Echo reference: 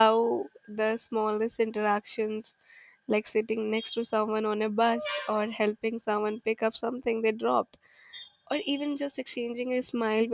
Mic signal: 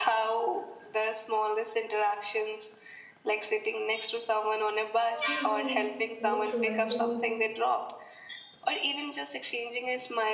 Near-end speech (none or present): present